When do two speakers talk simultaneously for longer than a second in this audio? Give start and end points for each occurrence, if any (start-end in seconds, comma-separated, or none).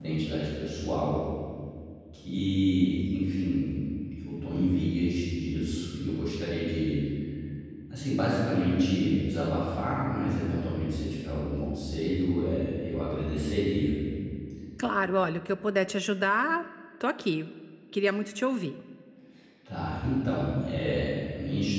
none